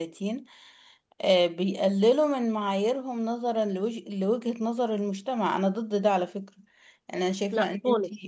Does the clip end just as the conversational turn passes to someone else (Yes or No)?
No